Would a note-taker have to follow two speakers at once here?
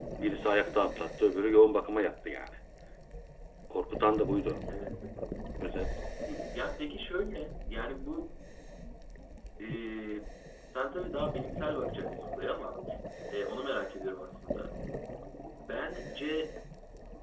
No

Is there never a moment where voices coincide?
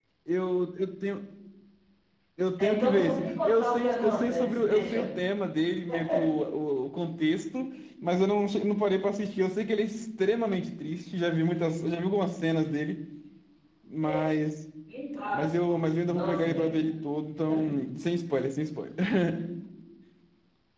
No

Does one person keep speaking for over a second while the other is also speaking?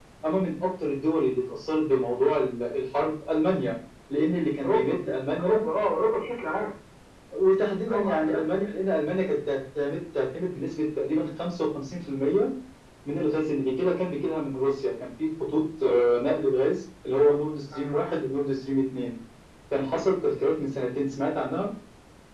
No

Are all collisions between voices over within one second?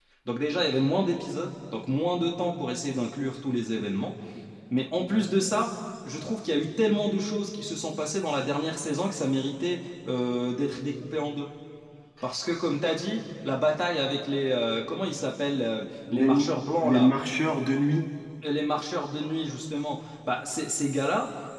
Yes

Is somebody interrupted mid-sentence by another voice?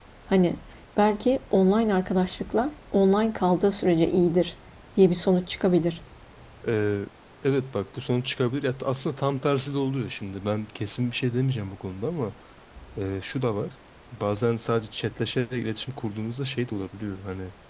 No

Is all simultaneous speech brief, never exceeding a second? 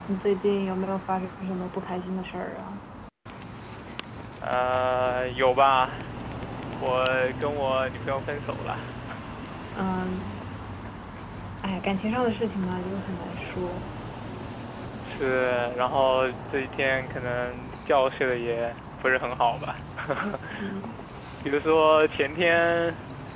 Yes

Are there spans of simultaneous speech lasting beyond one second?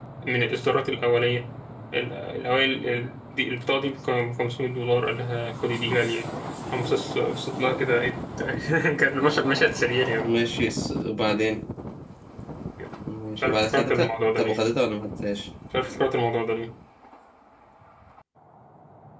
Yes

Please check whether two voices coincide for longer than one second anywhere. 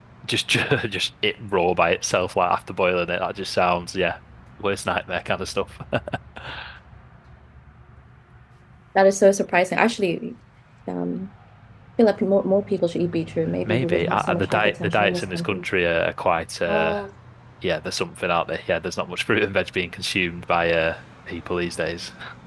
Yes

